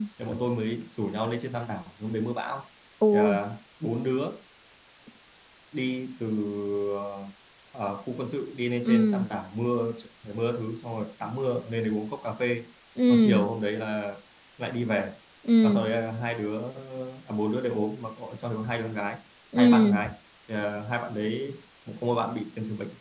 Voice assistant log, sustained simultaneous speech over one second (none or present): none